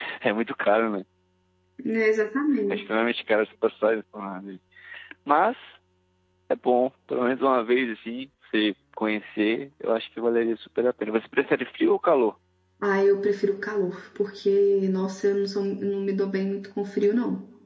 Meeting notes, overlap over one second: none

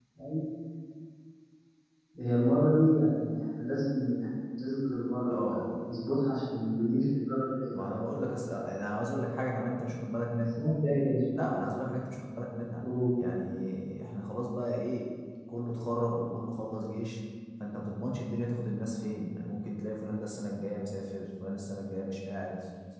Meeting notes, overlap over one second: none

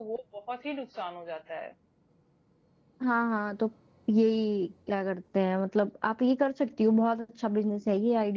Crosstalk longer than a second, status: none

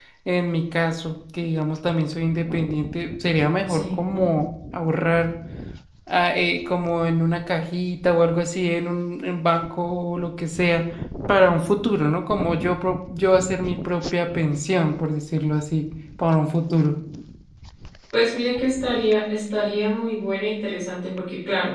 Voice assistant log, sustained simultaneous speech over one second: none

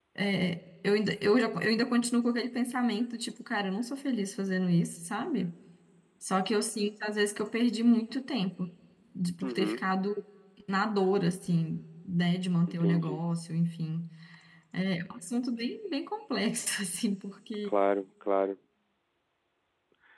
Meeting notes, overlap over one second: none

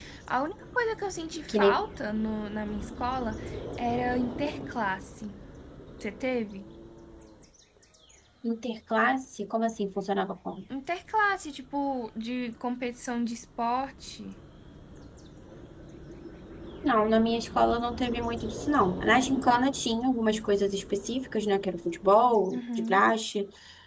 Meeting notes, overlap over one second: none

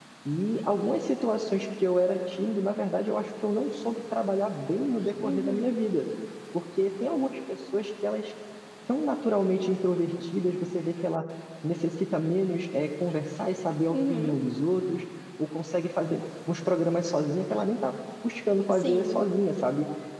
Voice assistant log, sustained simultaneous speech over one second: none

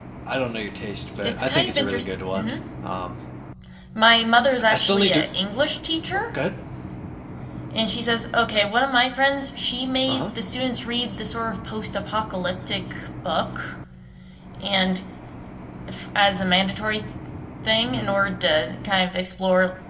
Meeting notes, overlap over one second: present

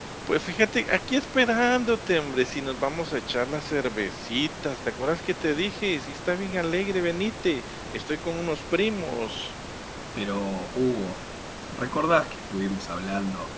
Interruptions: none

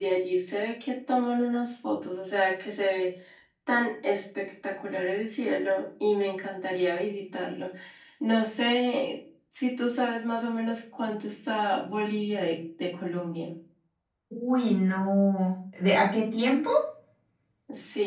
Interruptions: none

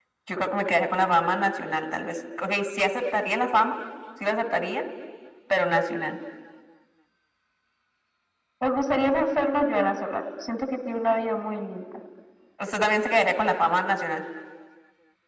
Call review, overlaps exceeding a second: none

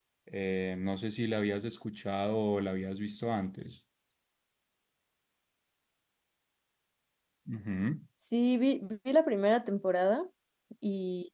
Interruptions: none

